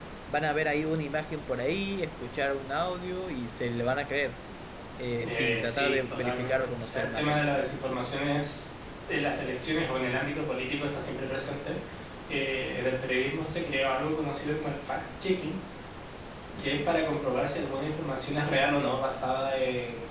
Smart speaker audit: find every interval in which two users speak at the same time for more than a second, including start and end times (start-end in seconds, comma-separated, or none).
5.2-7.5